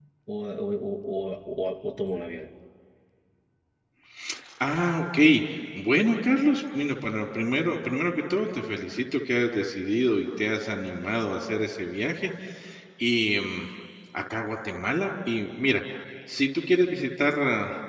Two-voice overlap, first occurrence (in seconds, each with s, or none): none